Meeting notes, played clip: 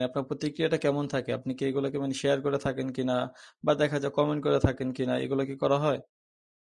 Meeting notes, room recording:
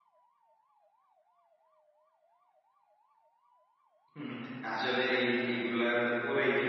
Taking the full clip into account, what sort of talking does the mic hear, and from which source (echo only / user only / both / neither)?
user only